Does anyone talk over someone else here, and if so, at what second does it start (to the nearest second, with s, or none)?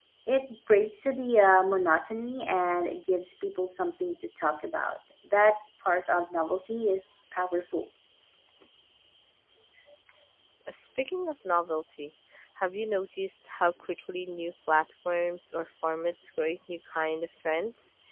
none